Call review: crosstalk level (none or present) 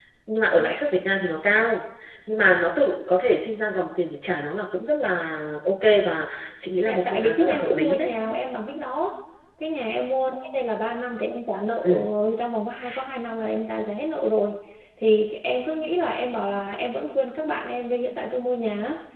present